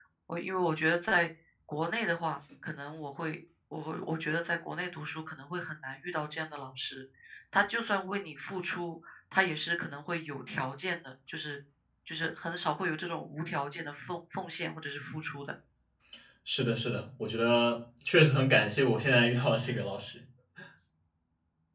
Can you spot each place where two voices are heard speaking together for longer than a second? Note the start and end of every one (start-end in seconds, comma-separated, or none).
none